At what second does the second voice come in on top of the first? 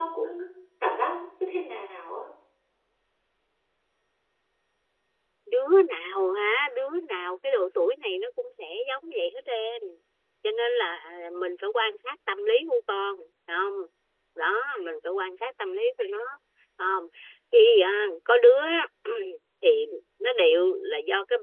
none

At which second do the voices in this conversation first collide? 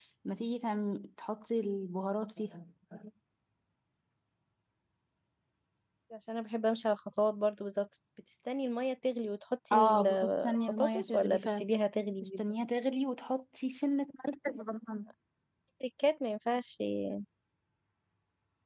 10 s

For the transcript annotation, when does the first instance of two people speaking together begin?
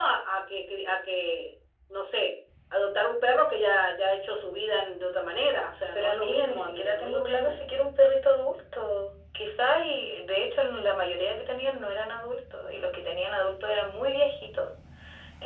6 s

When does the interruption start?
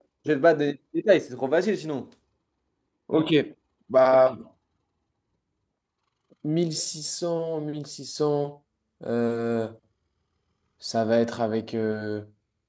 none

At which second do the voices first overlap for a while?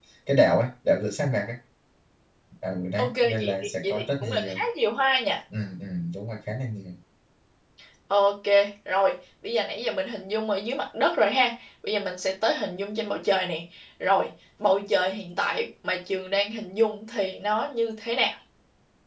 3 s

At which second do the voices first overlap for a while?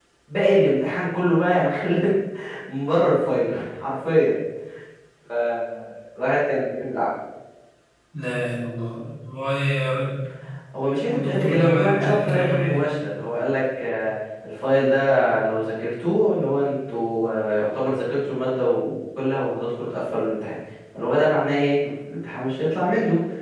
11 s

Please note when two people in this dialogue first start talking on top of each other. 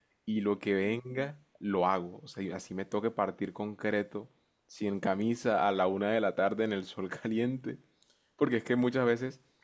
none

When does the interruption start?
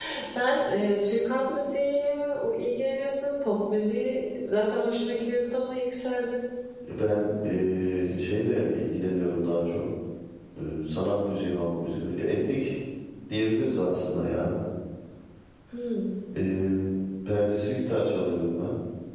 none

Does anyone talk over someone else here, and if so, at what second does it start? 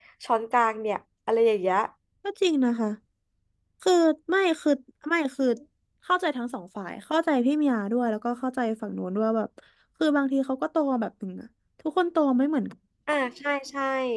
none

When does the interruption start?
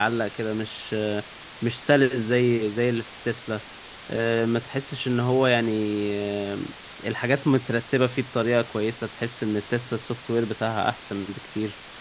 none

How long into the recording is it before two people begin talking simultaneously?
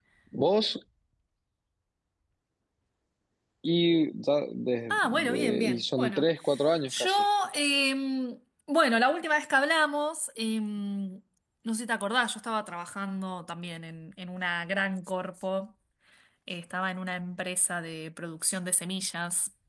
5 s

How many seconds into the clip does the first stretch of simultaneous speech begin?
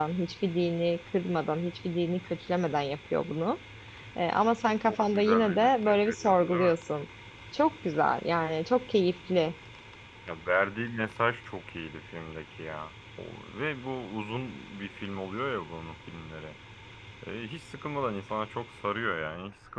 5 s

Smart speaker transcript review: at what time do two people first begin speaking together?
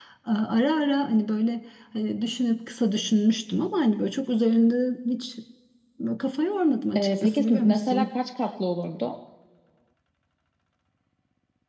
7 s

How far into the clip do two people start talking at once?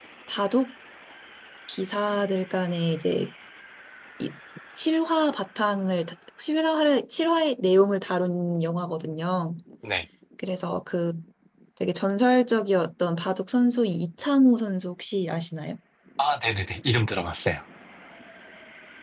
none

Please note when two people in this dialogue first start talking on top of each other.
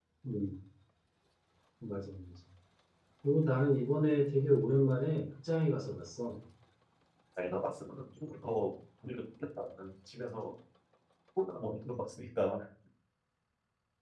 none

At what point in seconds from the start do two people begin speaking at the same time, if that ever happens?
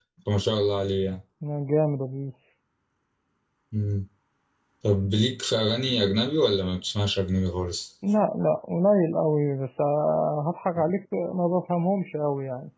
none

